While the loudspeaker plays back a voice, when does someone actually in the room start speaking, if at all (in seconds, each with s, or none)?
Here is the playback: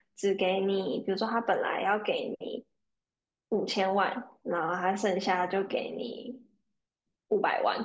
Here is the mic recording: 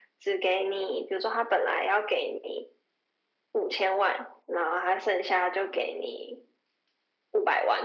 none